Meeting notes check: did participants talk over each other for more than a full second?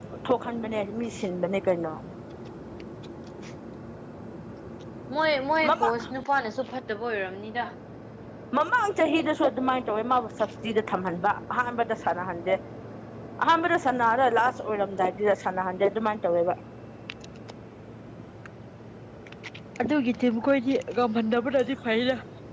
No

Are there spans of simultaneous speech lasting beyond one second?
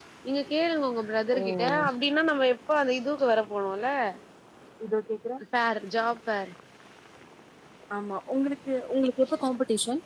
No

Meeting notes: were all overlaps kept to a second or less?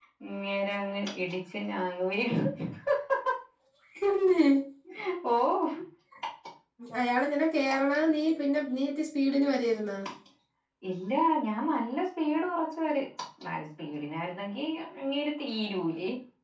Yes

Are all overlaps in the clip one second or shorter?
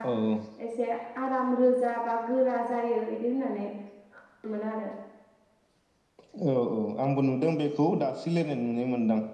Yes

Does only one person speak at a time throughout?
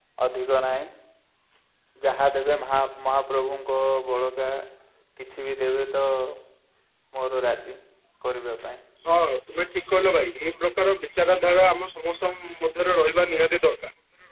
Yes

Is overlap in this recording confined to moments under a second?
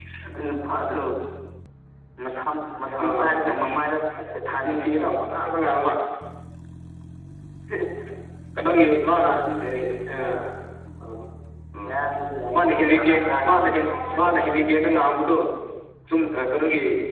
No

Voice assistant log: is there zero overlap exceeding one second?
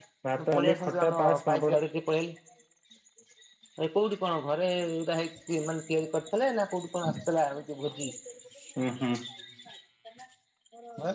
No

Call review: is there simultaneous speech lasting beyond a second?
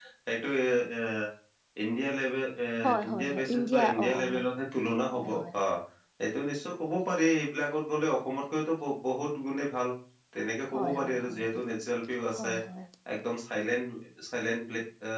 Yes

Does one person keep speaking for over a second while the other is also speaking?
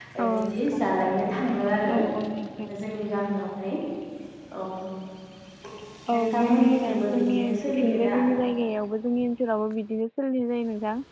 Yes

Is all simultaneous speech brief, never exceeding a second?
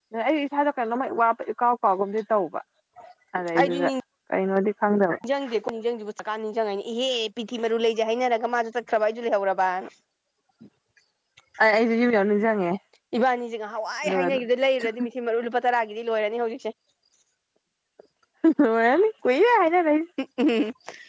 Yes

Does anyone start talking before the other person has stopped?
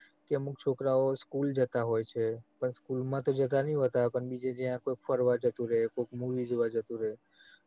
No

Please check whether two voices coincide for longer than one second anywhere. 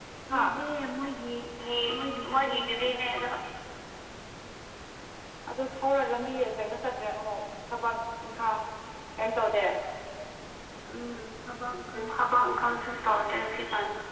Yes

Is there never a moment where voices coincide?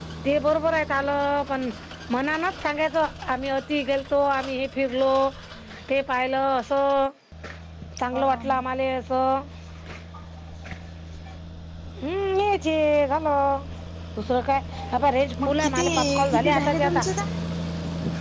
No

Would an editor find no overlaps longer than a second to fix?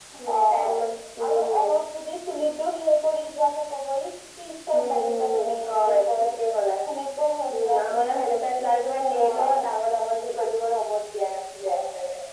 No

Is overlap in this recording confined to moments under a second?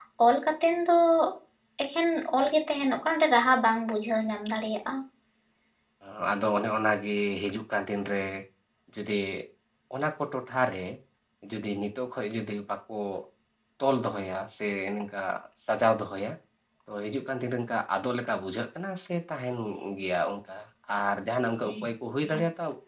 Yes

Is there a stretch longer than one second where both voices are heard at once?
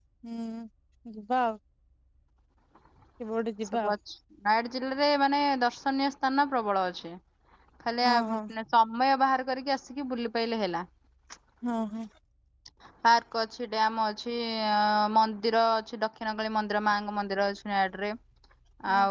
No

